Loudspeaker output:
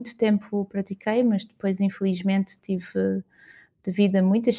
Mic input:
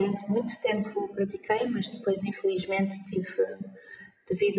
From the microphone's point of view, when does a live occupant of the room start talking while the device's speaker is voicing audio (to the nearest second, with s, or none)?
none